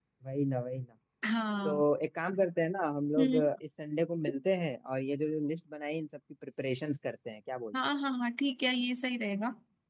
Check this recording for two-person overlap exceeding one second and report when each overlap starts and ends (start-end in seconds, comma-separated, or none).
none